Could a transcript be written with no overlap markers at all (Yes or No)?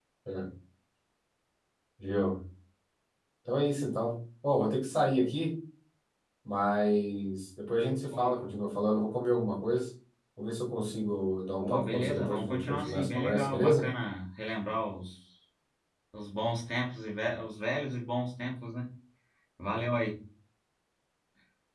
No